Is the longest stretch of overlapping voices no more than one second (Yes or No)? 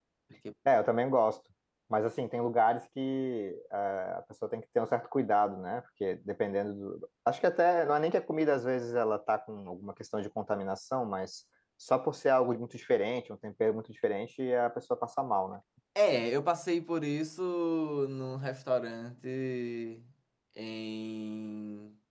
Yes